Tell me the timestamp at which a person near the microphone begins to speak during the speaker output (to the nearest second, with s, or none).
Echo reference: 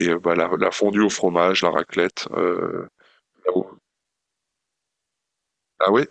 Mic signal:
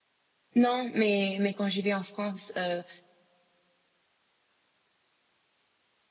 1 s